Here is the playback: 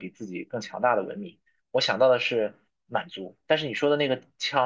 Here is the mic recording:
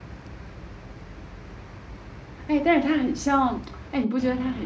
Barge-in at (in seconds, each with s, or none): 2.5 s